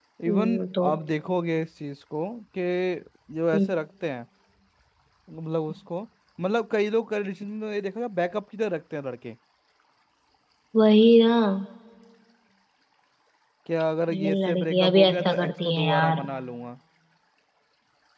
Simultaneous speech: Yes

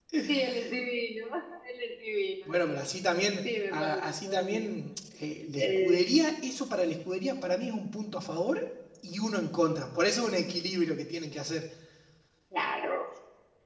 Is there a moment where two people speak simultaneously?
Yes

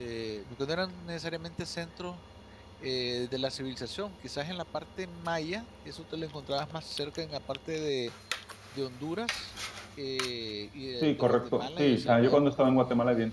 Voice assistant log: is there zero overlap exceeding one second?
No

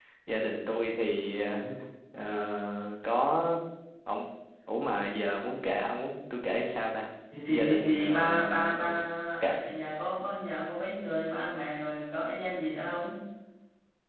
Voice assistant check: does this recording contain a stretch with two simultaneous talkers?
Yes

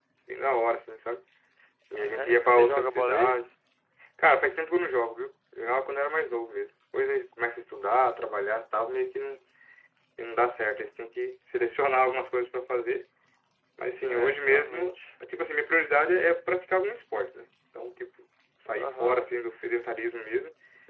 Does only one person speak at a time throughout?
No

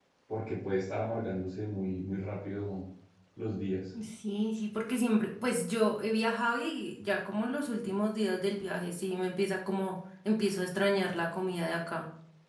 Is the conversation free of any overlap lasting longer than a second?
Yes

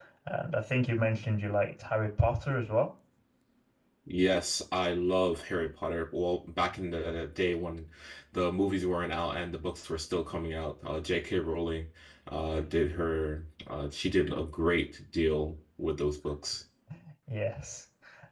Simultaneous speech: No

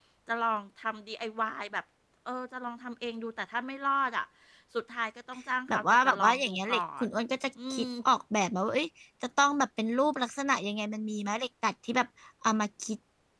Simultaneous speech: Yes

